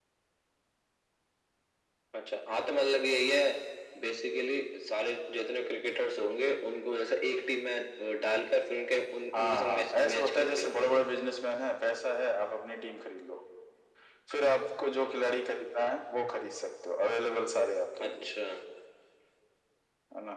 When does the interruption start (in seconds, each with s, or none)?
9.3 s